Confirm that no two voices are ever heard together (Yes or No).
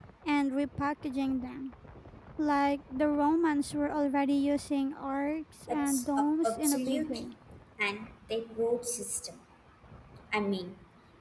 No